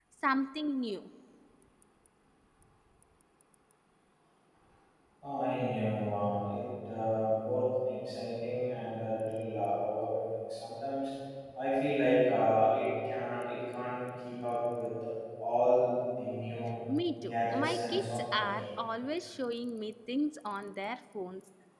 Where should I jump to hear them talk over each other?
17.2 s

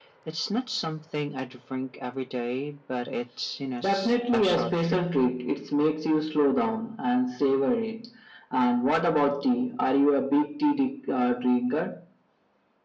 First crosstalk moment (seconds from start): 3.8 s

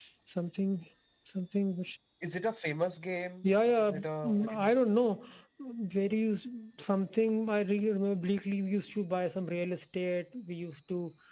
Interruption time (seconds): 3.4 s

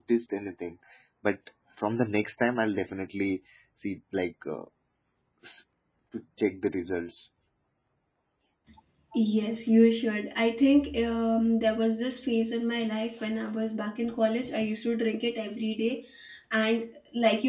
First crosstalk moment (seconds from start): none

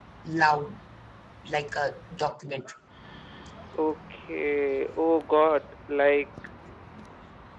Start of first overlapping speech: none

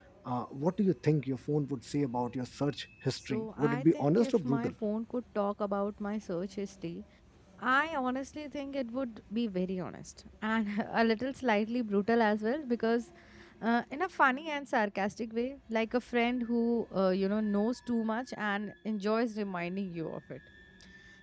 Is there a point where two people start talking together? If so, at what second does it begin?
3.3 s

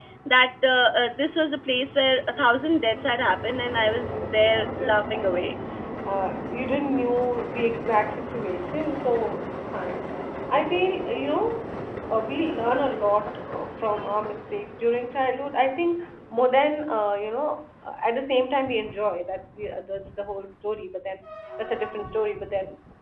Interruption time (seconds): 3.4 s

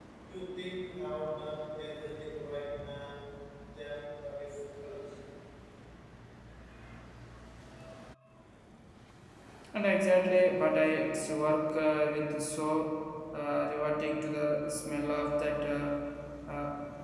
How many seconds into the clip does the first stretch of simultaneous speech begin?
none

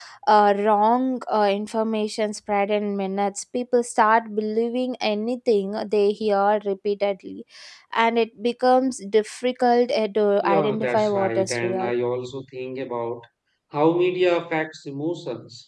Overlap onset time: 10.4 s

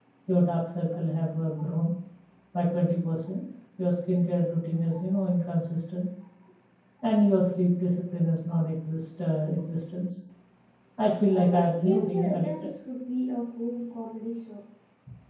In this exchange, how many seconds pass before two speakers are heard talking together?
11.3 s

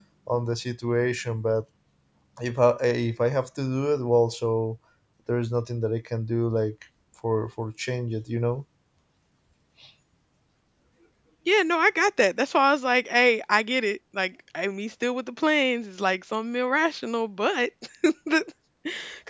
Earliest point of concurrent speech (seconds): none

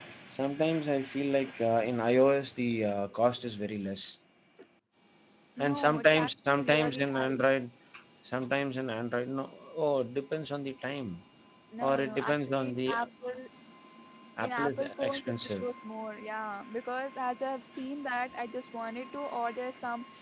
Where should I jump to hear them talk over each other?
5.6 s

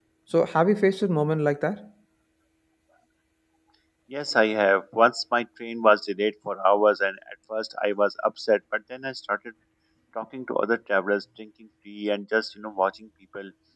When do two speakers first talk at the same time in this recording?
none

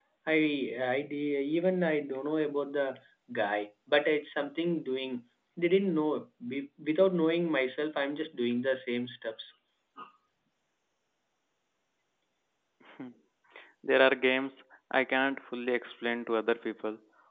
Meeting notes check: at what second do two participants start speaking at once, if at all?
none

